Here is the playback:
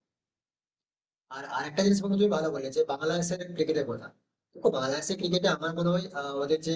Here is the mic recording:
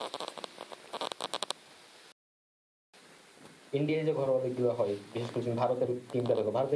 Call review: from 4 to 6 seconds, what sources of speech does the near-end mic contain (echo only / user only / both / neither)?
user only